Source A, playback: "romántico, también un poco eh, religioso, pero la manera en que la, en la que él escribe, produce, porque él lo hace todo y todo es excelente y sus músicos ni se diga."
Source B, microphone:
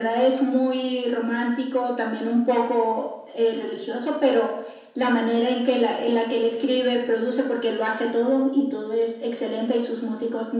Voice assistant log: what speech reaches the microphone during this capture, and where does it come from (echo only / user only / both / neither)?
echo only